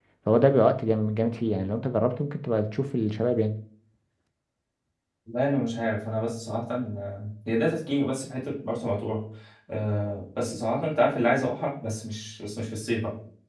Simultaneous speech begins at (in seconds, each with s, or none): none